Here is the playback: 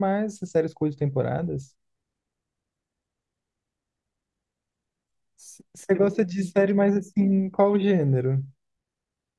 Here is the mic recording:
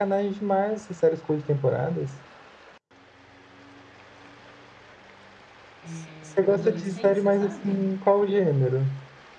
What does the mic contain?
both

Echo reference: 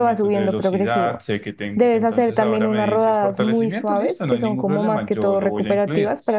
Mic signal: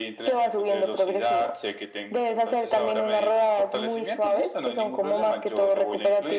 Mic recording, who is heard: echo only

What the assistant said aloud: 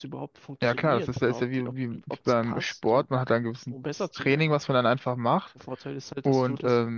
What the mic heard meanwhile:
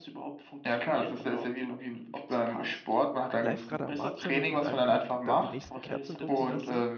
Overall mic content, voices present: both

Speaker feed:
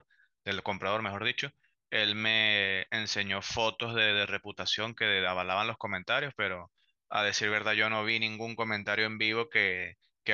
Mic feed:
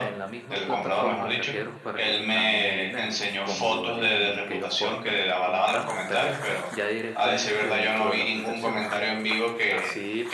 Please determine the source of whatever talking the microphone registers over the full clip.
both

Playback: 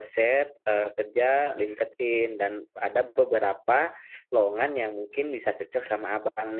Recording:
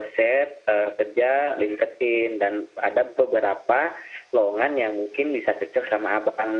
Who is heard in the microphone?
echo only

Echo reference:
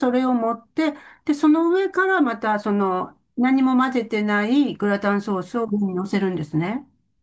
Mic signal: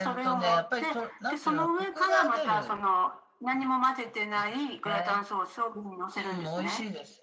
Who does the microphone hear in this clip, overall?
both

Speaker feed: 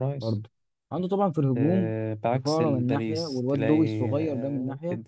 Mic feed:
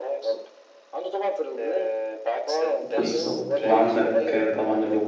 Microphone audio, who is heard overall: both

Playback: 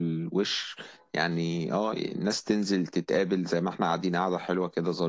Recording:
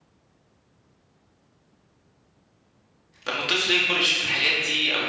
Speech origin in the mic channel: user only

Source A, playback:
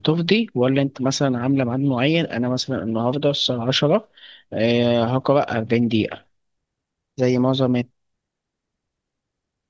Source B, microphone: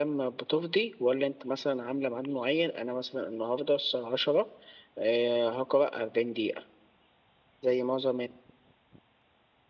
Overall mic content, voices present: echo only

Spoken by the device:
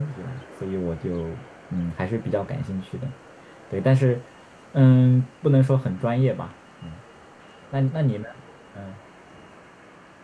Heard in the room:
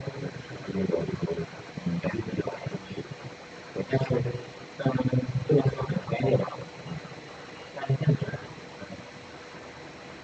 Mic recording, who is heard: echo only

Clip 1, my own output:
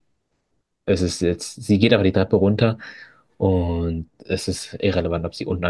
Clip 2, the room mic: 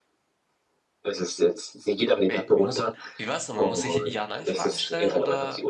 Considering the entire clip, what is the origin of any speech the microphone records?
both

